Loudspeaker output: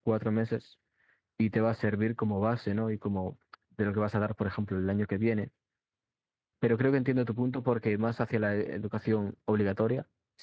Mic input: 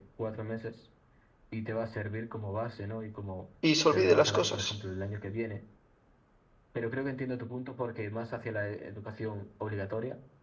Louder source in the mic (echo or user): user